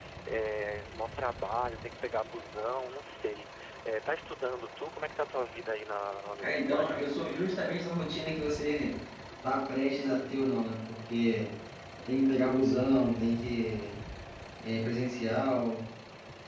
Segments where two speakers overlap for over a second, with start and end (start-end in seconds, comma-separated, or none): none